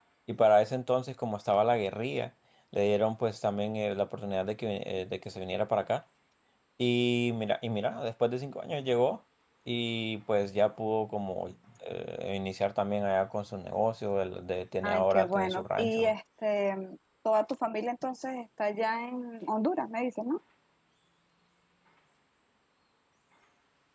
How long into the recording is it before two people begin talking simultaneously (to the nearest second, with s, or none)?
15 s